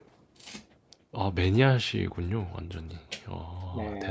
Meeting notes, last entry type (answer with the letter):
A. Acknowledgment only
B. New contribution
B